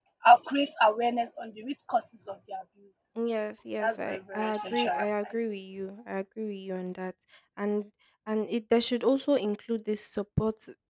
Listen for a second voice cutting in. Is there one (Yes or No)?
Yes